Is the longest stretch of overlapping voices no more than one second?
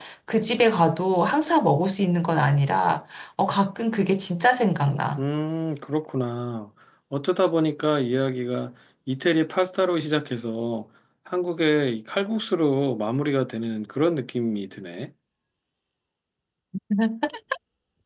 Yes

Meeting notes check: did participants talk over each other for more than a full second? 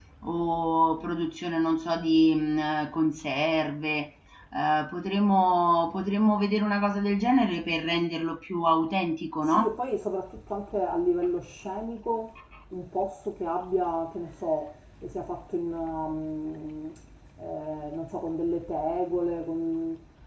No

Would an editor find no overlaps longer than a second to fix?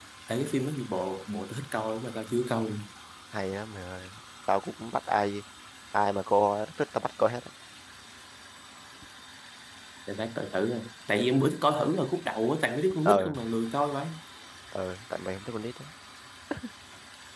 Yes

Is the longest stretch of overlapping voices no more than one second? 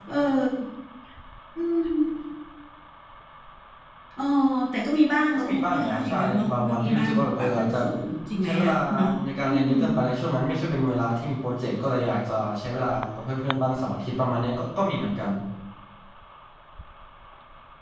No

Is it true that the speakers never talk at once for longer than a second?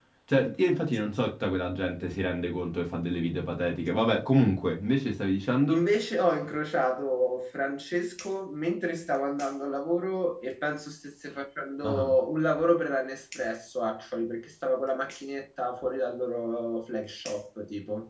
Yes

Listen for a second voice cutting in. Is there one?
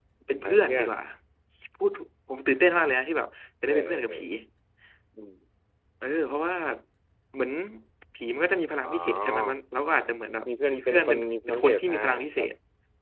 Yes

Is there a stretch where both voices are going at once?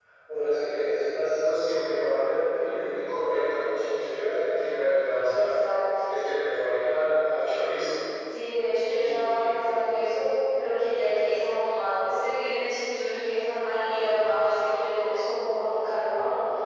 Yes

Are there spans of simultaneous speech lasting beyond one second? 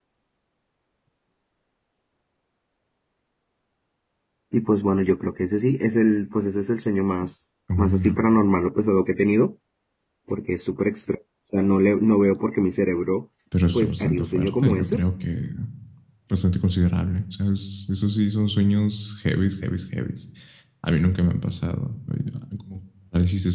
Yes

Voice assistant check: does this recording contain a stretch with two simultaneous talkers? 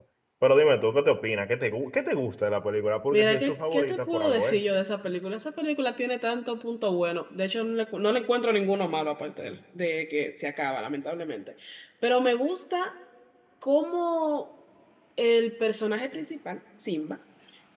Yes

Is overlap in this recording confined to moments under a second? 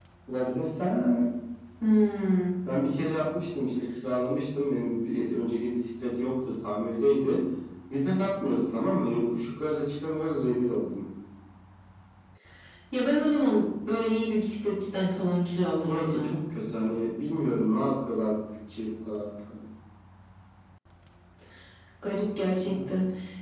Yes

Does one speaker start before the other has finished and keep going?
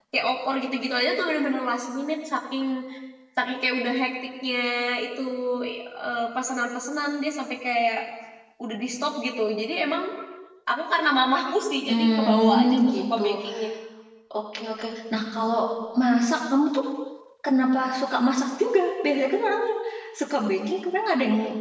Yes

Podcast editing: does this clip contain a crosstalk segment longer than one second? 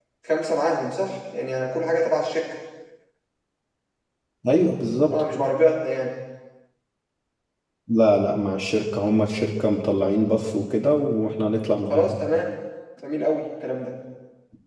No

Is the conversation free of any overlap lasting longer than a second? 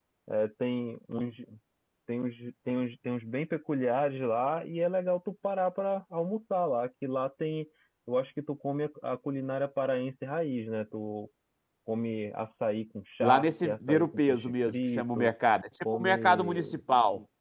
No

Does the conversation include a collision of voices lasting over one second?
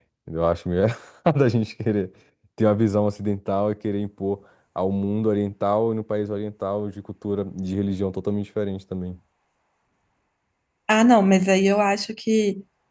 No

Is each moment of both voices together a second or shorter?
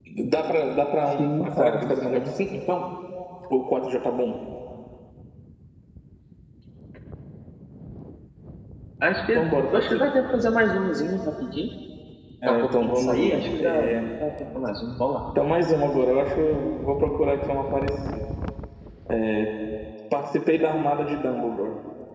No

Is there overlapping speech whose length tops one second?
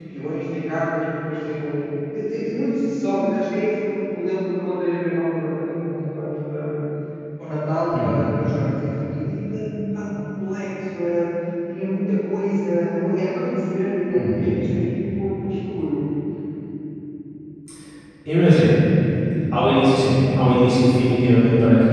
No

